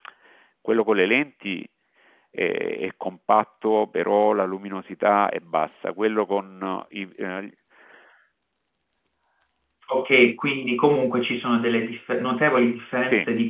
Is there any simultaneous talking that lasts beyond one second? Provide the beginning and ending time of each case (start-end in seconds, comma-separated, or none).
none